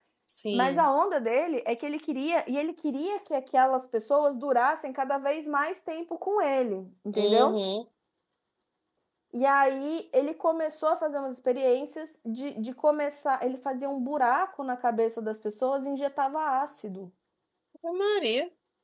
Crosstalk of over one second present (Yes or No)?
No